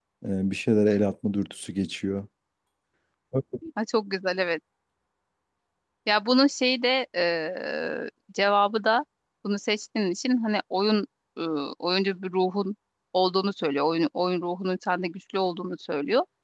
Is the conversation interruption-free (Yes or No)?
Yes